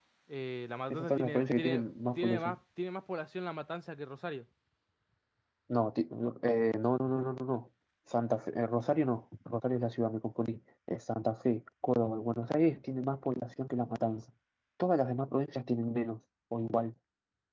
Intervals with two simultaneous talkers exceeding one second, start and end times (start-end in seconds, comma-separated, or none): 0.9-2.6